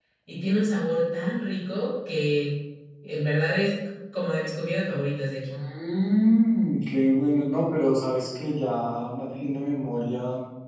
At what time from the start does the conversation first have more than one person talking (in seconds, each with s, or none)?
none